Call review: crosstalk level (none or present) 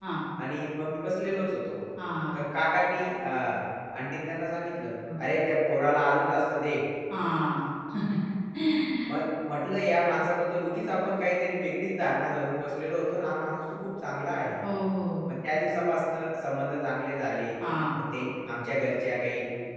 none